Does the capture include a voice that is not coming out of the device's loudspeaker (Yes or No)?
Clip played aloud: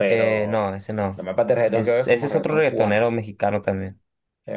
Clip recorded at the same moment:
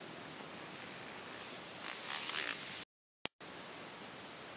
No